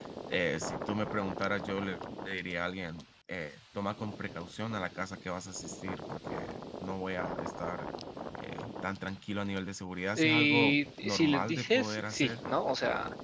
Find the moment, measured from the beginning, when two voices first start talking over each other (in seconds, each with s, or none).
10.2 s